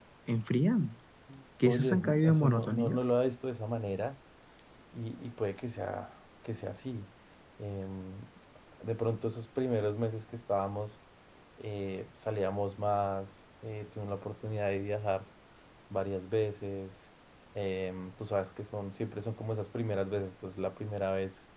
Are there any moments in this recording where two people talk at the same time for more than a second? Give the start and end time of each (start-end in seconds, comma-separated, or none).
1.6-3.0